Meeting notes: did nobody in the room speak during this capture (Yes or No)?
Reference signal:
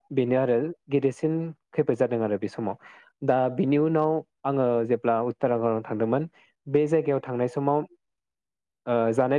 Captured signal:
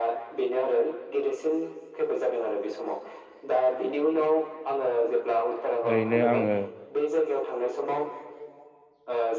No